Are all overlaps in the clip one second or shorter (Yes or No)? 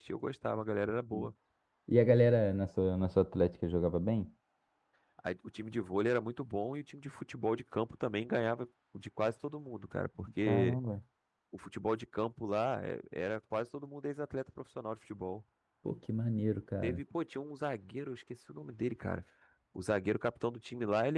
Yes